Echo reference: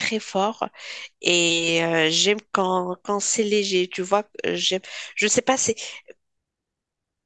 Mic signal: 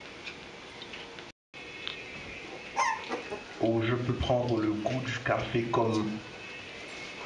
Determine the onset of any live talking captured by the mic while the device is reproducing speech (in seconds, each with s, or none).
3.6 s